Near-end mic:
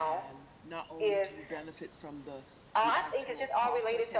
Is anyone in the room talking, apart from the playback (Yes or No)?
Yes